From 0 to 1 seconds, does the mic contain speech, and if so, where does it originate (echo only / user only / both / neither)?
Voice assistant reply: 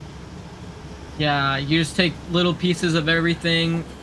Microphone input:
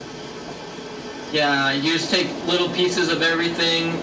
neither